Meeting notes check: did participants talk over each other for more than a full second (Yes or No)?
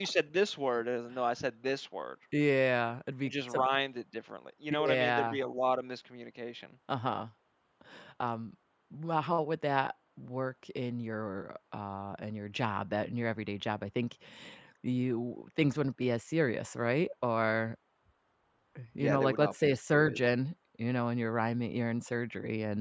Yes